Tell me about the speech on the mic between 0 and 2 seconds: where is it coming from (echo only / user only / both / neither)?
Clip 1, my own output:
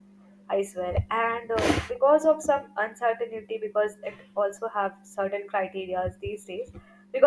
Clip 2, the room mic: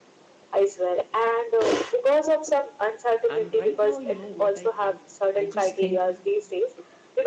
echo only